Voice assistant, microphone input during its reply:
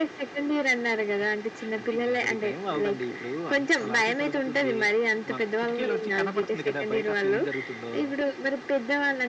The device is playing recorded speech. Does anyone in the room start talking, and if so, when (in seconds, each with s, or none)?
none